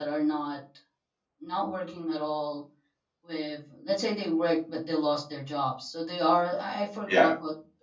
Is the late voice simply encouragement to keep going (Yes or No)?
Yes